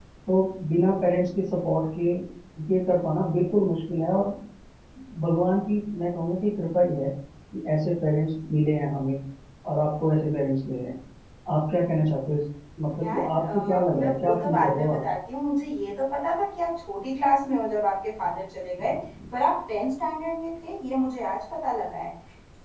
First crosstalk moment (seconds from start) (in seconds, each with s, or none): 13.0 s